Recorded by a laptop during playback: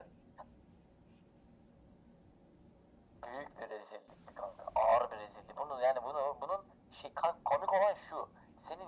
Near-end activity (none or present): none